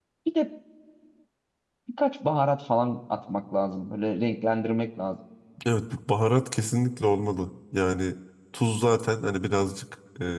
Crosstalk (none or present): none